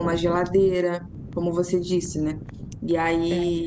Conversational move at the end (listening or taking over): listening